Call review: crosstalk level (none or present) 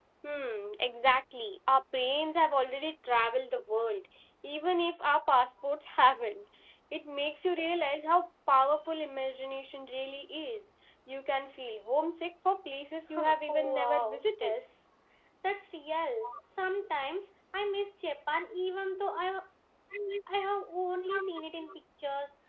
present